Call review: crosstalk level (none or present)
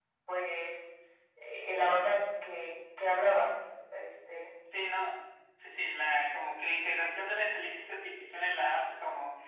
none